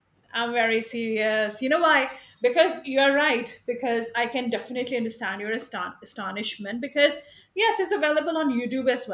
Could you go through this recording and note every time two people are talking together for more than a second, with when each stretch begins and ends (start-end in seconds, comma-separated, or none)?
none